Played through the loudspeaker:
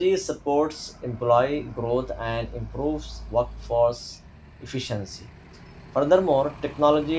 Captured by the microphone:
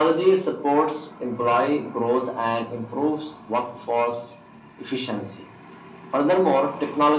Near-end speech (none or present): none